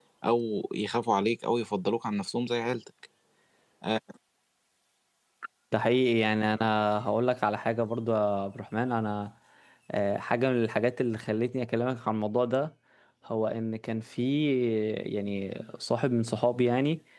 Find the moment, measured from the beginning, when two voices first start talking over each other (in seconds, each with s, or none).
none